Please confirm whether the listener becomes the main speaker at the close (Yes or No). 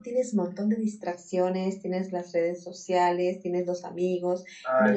No